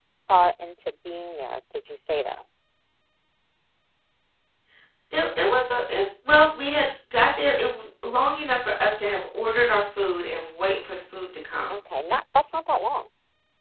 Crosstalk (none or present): none